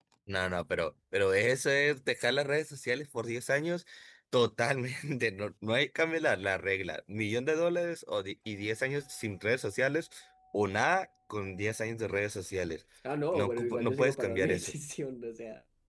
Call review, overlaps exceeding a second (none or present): present